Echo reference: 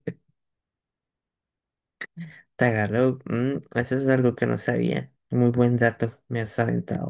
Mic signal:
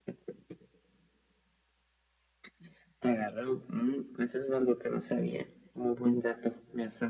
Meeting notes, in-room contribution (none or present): none